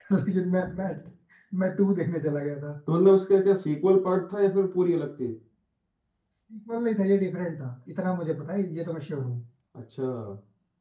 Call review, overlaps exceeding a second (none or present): none